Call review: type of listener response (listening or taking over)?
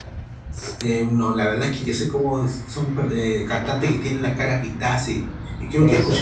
listening